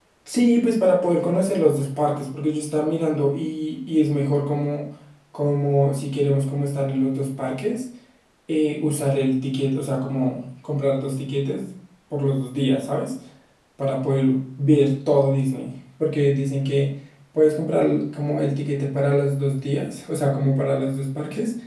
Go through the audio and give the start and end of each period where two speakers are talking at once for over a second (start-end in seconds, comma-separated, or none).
none